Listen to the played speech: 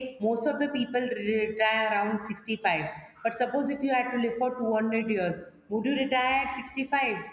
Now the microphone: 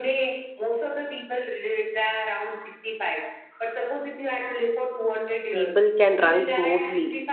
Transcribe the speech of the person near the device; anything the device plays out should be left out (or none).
people can run smoothly